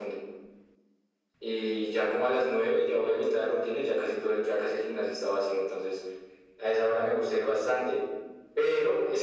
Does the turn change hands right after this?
No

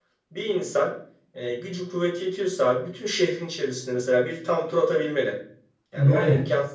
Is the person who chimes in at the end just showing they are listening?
Yes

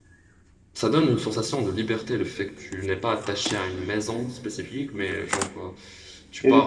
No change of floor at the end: No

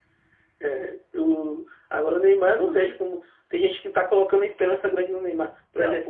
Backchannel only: Yes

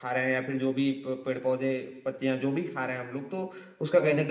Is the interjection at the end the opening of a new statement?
No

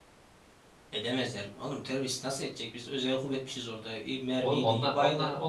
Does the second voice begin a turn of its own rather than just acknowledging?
Yes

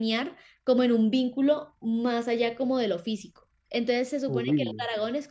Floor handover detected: No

